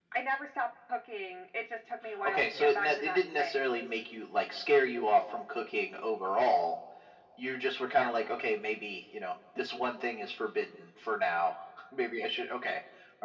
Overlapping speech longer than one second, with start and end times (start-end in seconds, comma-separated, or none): 2.2-3.6